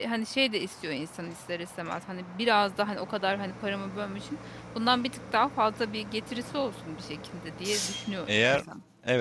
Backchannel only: No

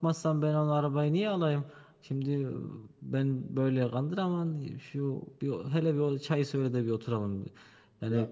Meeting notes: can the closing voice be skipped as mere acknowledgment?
Yes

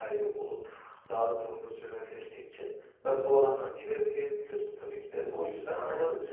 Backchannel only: Yes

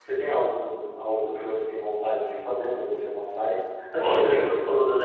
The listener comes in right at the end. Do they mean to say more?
No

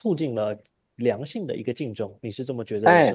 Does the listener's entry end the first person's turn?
Yes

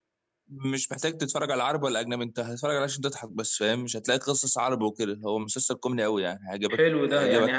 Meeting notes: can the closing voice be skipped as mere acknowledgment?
No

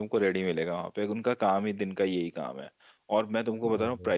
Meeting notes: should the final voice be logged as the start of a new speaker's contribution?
No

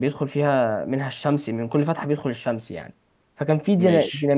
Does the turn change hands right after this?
No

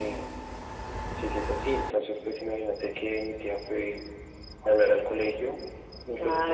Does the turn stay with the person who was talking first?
No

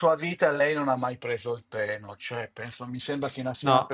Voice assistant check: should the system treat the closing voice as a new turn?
No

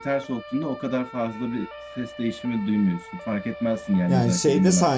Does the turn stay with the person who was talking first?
No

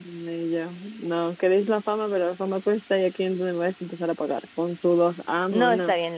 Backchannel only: No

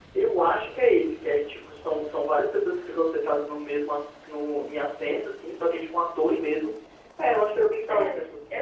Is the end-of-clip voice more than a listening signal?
Yes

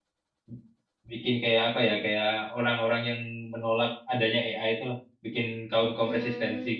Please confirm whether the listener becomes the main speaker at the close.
Yes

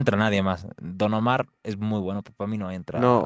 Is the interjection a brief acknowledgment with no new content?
No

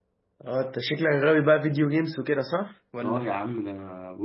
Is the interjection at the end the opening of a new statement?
Yes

